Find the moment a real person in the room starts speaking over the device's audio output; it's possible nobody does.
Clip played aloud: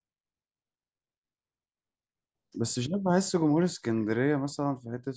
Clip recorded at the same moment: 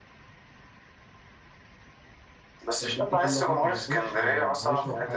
3 s

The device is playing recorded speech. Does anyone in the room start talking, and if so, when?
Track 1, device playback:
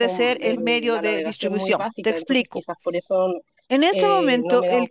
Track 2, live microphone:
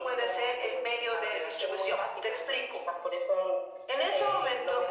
none

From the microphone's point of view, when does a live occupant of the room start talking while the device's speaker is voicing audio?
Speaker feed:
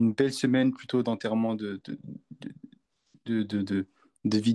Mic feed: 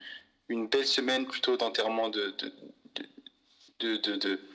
none

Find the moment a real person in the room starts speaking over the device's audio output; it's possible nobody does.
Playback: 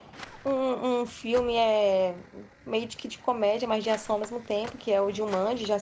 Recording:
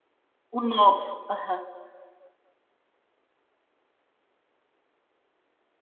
1 s

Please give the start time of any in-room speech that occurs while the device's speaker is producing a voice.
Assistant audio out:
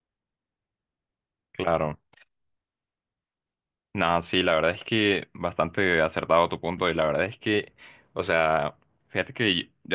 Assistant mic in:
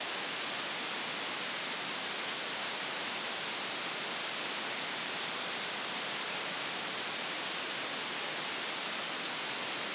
none

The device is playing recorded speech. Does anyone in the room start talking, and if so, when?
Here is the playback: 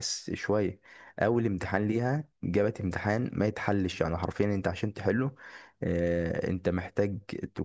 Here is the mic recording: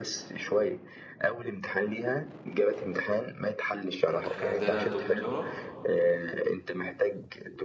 4 s

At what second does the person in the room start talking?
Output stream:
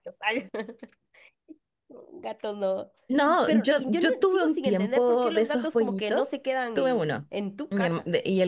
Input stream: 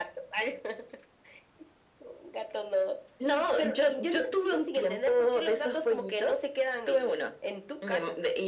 none

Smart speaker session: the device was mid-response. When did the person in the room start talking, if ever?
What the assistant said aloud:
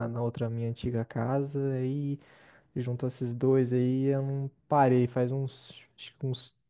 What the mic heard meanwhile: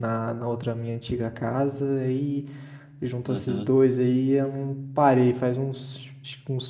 3 s

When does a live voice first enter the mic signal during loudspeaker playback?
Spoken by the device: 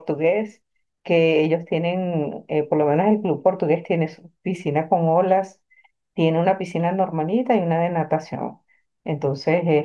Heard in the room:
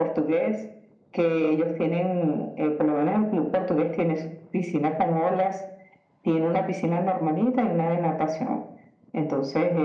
none

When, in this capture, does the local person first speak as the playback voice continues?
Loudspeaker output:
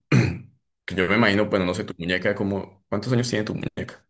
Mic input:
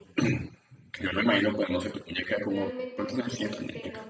2 s

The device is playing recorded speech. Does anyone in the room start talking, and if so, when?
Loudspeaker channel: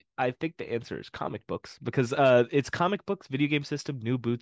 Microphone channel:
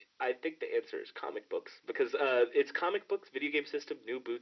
none

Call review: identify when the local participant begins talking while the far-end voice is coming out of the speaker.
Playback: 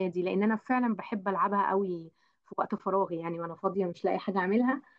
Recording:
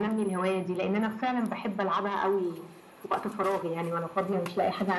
none

